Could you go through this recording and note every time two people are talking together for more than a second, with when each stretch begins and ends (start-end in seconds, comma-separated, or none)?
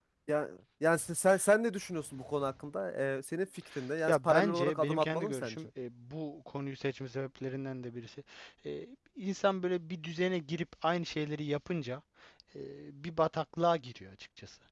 4.1-5.6